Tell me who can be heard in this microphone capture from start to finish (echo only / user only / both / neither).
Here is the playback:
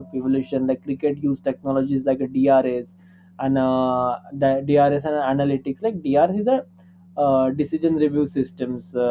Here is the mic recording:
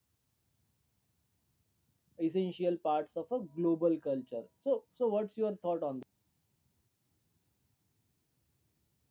user only